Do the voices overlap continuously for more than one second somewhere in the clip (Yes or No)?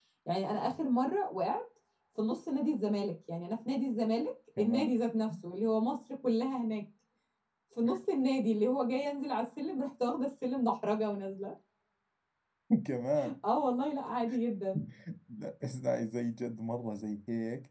No